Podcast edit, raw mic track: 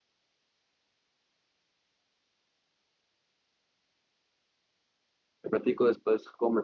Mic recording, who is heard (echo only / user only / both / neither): user only